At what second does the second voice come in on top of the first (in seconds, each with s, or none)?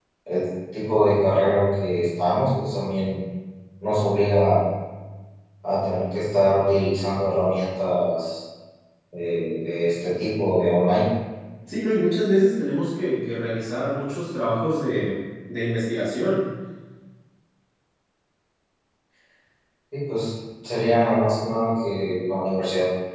none